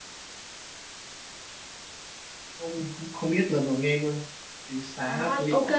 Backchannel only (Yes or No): No